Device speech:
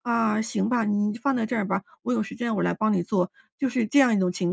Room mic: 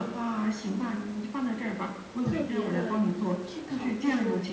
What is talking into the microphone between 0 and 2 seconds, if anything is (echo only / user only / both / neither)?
echo only